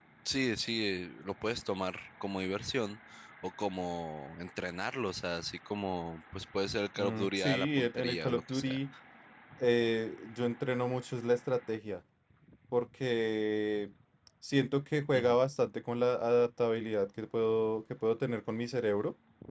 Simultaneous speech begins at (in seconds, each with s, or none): 7.0 s